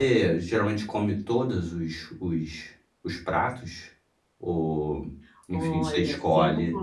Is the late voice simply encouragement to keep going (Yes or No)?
No